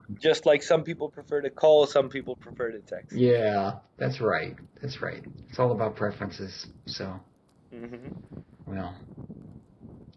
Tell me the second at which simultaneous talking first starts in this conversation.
none

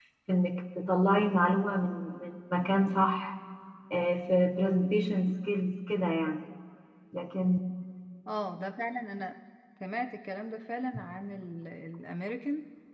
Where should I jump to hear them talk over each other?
none

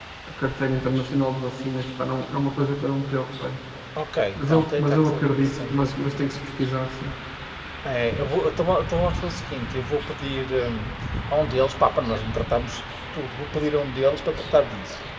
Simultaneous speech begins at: 4.4 s

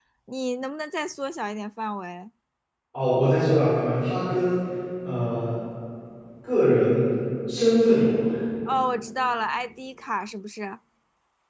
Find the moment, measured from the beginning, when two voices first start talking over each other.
none

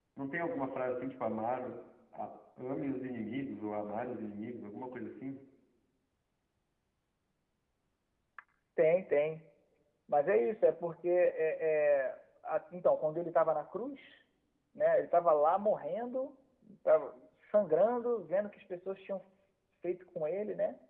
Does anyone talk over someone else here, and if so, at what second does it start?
none

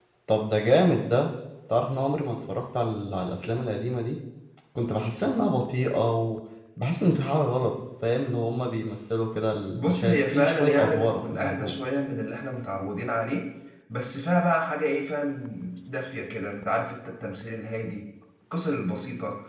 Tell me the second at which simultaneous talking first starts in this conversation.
9.7 s

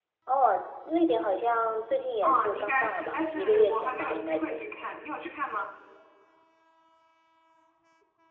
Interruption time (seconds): 2.2 s

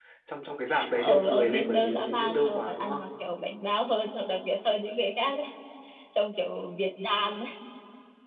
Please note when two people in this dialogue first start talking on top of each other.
1.0 s

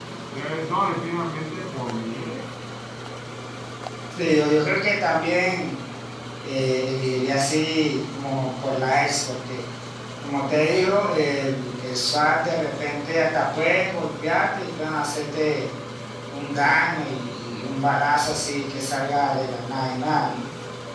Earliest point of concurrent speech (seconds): none

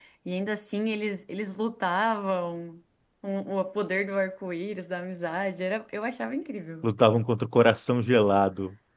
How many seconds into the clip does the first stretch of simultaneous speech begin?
none

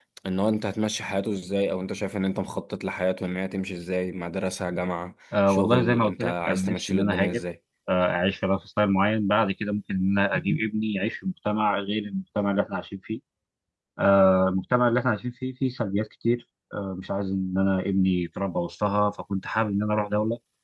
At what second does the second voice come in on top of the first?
5.3 s

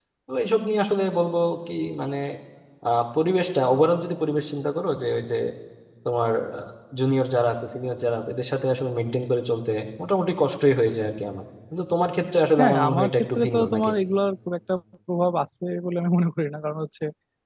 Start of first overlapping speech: 12.6 s

